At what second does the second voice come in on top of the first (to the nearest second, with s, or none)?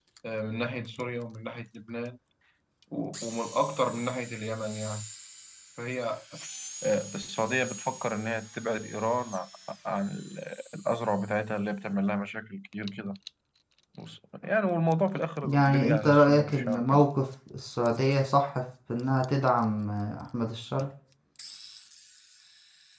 15 s